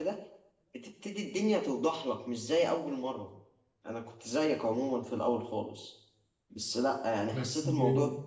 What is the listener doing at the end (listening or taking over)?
listening